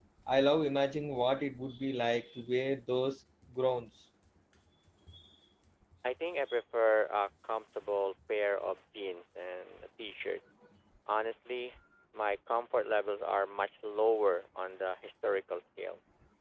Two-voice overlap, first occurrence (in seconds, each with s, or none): none